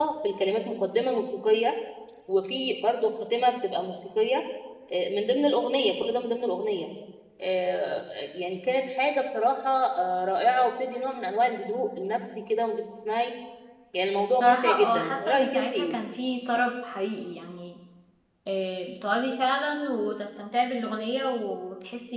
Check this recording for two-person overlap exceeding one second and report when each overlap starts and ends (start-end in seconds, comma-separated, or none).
14.4-15.9